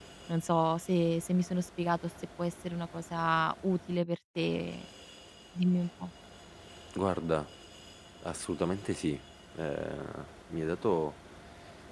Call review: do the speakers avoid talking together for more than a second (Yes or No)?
Yes